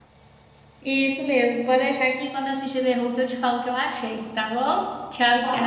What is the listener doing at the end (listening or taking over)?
taking over